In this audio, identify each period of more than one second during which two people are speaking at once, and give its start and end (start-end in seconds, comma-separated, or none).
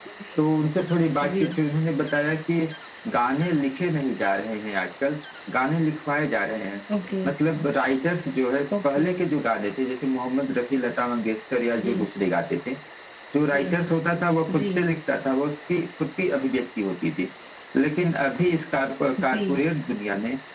none